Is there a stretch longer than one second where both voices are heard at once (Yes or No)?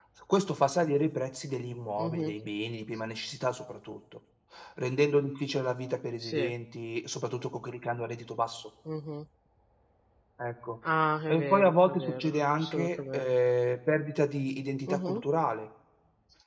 Yes